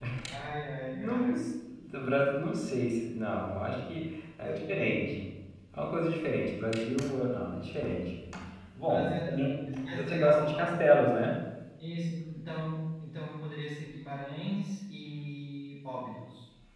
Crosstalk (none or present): present